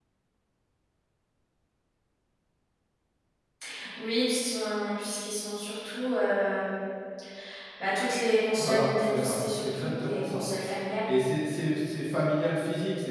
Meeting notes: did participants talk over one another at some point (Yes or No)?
Yes